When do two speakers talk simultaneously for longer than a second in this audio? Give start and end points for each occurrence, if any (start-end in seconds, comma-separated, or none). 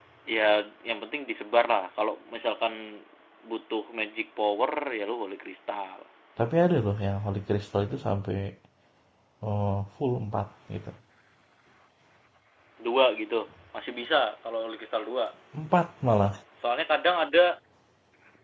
none